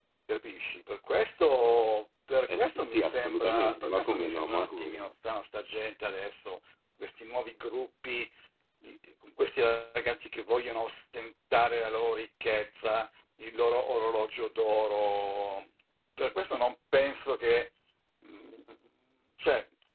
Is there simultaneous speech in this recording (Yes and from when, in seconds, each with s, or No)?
Yes, from 2.5 s